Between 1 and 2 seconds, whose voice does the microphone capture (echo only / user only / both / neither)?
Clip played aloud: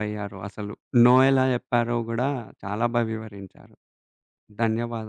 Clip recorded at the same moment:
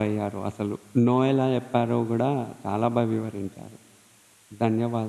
echo only